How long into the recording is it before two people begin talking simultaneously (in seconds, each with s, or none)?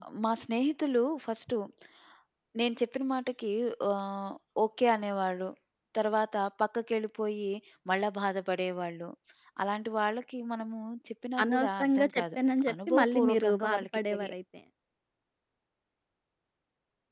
11.4 s